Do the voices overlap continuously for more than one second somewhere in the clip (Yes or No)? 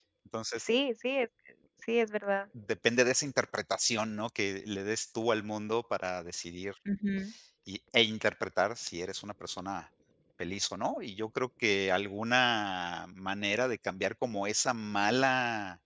No